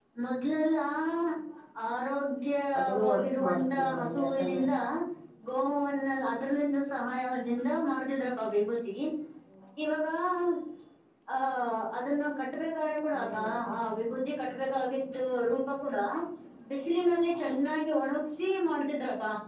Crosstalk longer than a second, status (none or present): present